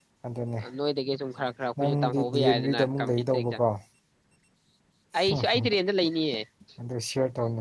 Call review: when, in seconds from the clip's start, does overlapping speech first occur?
1.8 s

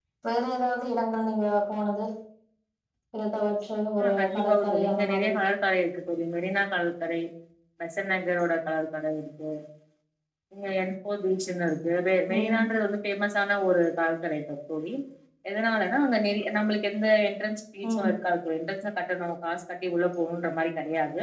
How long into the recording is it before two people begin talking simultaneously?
4.0 s

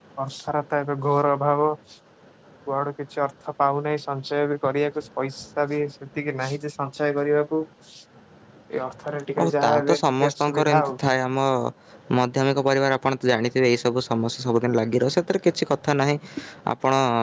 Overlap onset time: 9.4 s

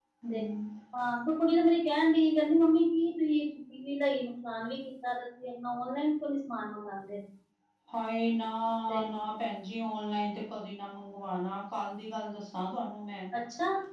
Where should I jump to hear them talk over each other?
none

